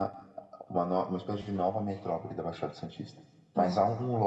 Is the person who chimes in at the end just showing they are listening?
Yes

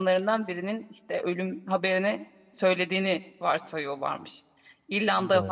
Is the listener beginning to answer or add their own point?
No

